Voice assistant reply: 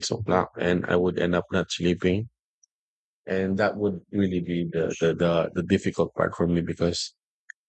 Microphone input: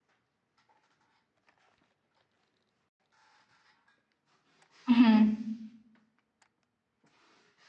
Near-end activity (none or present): present